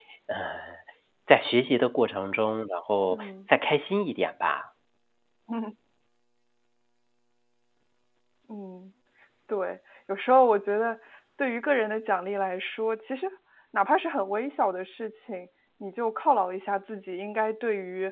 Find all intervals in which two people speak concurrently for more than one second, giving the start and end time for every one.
none

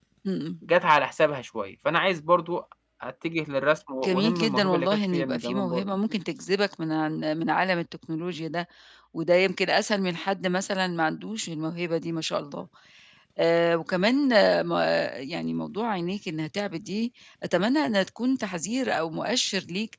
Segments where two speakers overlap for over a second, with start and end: 4.0-5.8

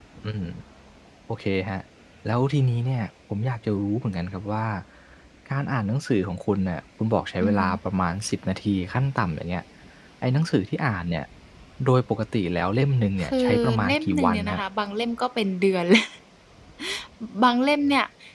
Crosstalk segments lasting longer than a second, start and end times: 13.2-14.6

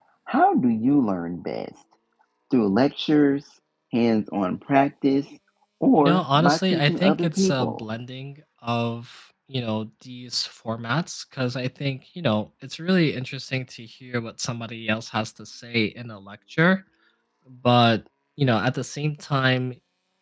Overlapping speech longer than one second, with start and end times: 6.0-7.8

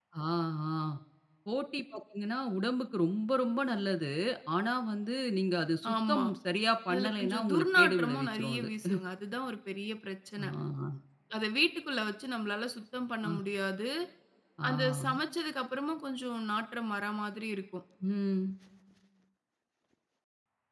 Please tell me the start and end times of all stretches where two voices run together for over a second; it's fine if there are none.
6.9-8.7

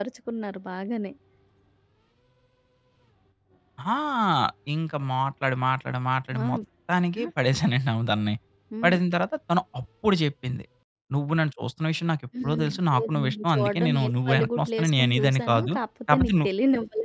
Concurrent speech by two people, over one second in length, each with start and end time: 12.4-15.7

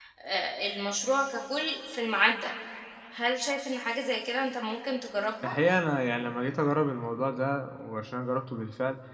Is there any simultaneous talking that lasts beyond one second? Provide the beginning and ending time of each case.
none

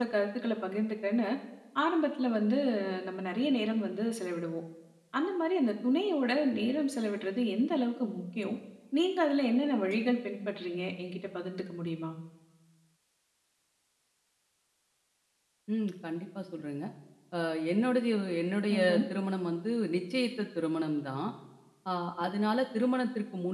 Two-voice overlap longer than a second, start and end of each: none

